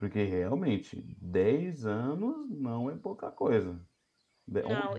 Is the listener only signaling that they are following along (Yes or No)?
No